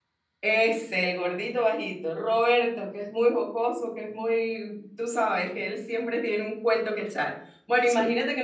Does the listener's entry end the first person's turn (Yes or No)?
No